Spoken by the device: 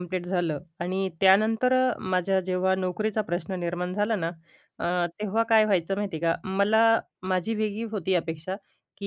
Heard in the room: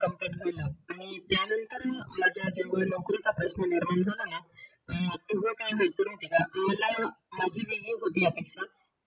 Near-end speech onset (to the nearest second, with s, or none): none